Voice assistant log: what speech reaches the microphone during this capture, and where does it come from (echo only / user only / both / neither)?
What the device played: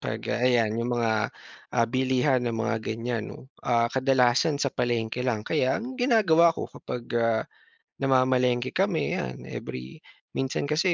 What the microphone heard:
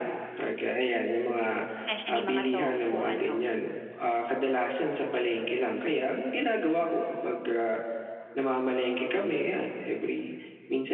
both